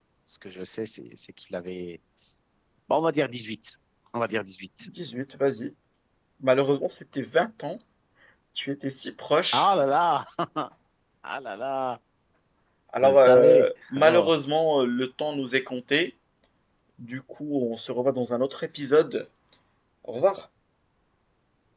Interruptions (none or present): present